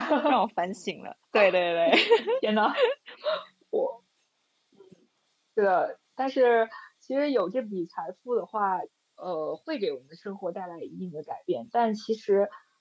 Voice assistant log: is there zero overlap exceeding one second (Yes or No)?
Yes